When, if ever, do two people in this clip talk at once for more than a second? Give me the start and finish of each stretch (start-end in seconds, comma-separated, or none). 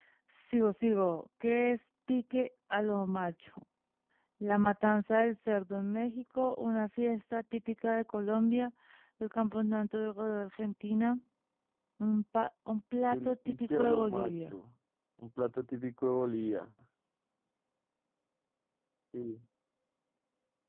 13.1-14.6